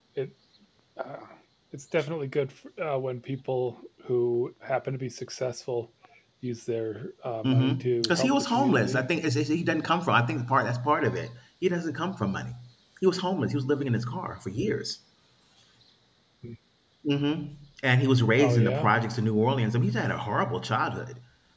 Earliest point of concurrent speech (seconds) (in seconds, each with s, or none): 7.4 s